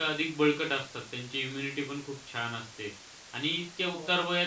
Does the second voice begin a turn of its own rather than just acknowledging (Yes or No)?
No